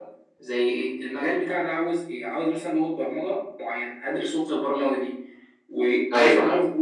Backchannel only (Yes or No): Yes